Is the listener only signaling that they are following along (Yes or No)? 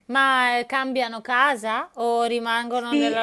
No